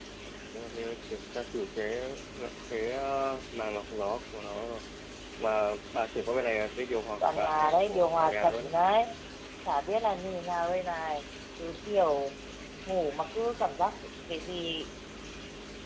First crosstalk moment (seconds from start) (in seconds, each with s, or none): 7.2 s